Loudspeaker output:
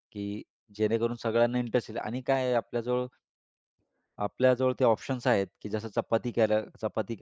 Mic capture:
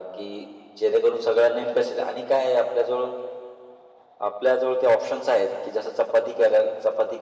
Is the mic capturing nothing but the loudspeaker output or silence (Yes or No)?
Yes